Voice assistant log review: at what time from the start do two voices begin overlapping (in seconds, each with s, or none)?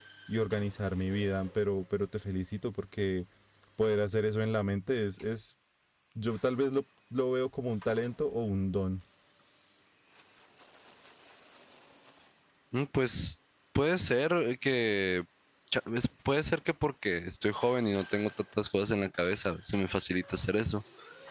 none